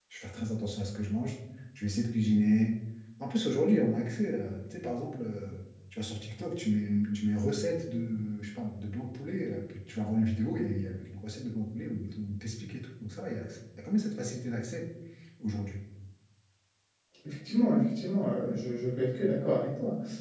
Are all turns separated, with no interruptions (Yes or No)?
Yes